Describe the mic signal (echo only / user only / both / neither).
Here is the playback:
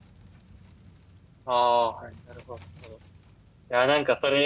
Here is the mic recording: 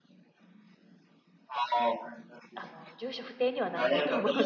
both